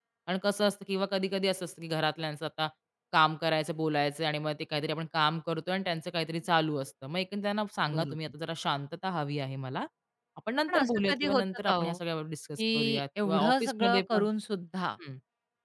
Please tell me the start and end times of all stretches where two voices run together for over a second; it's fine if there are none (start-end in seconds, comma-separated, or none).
10.7-12.0, 12.6-14.2